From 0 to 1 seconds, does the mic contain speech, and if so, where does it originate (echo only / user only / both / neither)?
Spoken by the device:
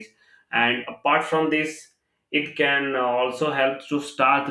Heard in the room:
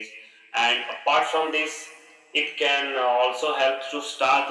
echo only